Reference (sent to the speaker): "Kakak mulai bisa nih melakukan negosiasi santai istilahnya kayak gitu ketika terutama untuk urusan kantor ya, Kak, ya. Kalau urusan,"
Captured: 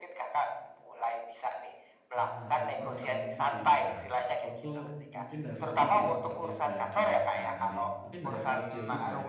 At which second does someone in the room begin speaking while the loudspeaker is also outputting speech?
2.1 s

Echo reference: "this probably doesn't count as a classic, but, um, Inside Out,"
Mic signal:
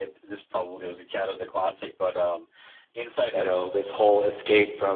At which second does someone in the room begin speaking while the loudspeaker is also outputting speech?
3.3 s

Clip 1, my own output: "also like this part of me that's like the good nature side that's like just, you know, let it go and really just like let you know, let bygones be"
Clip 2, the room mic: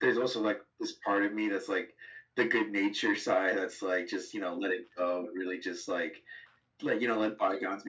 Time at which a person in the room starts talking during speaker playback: none

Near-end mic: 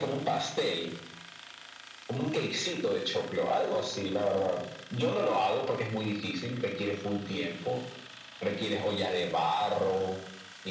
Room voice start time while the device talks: none

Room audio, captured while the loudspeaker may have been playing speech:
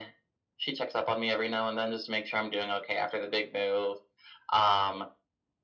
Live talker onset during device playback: none

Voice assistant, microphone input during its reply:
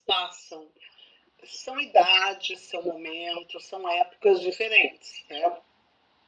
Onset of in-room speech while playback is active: none

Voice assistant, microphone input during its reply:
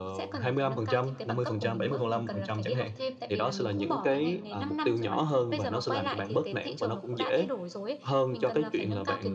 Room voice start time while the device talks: none

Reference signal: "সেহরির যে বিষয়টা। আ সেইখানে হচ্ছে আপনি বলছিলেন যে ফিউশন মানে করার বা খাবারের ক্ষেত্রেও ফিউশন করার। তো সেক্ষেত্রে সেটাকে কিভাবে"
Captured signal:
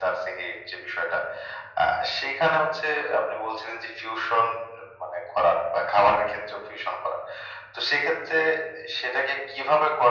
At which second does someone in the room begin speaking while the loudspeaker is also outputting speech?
none

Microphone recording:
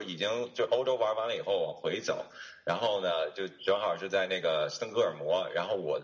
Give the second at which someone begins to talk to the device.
none

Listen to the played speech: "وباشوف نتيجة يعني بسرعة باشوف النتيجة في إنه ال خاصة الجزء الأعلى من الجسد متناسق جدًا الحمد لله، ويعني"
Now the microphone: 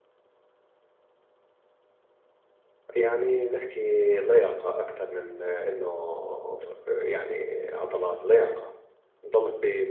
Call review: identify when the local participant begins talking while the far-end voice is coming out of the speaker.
3.0 s

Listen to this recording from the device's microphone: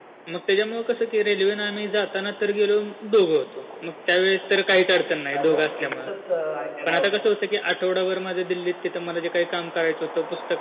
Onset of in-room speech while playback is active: 5.4 s

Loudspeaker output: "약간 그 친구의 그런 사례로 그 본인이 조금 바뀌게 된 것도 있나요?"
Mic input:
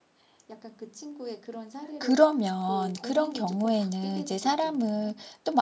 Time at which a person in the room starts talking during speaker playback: 2.0 s

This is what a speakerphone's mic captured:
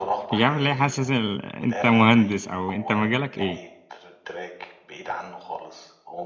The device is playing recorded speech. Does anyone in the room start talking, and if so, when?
0.3 s

